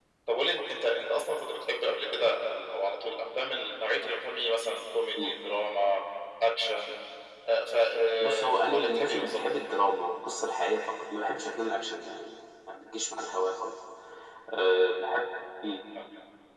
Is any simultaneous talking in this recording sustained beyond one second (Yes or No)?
Yes